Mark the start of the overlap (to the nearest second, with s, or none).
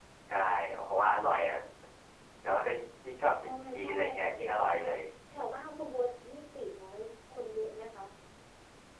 3 s